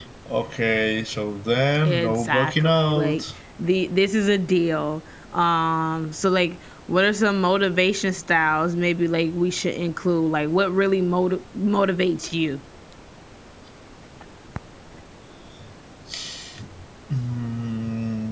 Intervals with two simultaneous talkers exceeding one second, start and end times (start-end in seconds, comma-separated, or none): 1.8-3.2